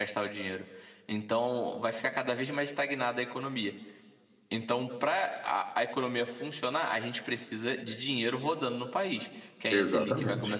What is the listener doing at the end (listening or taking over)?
listening